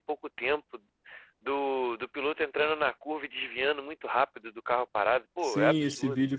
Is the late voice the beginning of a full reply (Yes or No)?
Yes